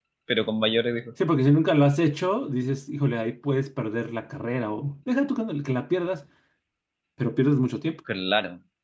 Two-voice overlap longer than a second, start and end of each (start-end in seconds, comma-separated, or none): none